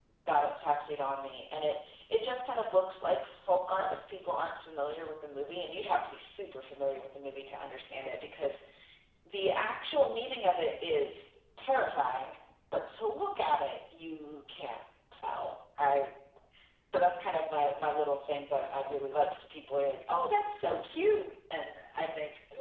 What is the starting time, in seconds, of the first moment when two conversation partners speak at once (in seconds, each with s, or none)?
none